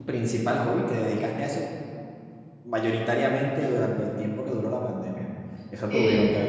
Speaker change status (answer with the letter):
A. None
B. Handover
A